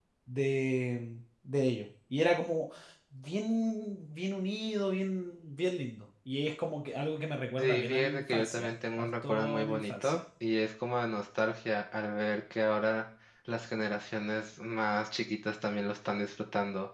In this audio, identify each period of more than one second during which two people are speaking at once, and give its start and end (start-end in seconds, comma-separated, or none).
7.6-10.2